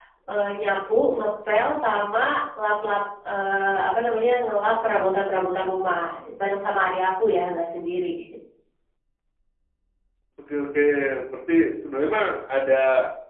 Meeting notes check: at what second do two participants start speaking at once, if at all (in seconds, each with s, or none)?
none